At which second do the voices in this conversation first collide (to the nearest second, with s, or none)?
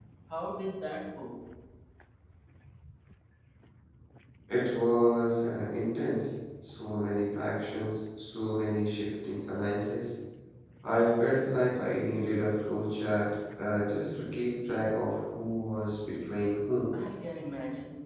none